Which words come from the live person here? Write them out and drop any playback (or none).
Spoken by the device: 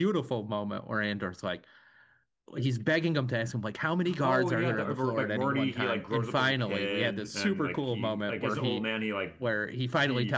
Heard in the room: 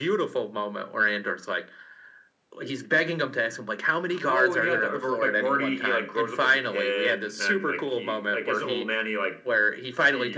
none